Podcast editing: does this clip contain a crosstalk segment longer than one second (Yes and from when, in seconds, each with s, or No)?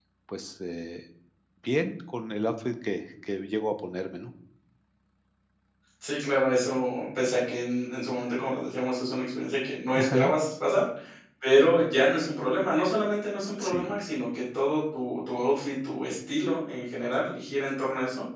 No